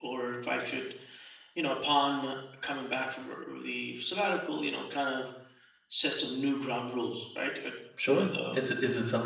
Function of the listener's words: taking over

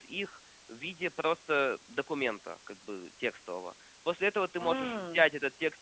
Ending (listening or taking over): listening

